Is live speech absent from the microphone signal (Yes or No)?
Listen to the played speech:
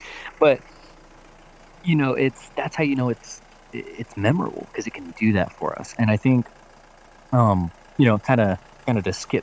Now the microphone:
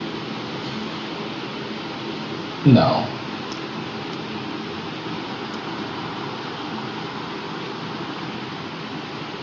No